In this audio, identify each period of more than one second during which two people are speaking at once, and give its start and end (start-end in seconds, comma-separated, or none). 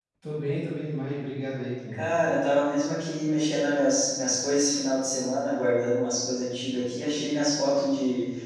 none